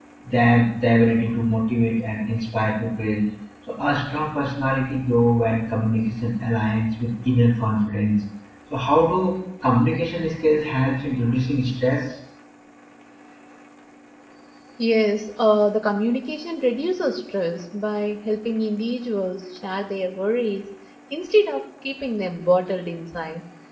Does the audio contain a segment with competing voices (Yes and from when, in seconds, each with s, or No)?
No